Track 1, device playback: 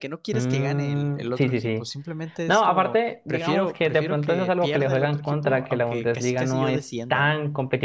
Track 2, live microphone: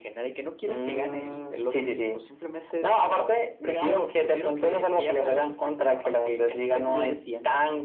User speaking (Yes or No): No